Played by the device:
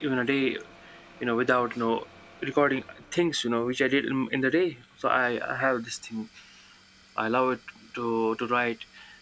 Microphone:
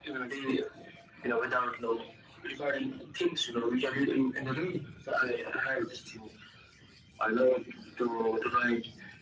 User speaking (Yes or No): No